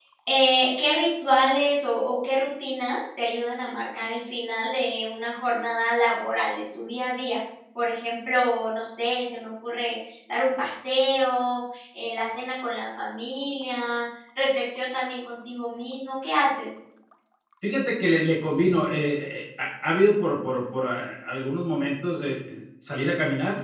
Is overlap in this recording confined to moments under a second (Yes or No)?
Yes